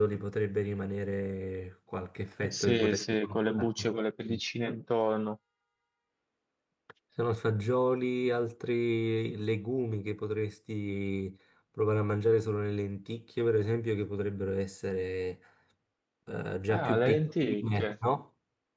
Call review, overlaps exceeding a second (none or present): present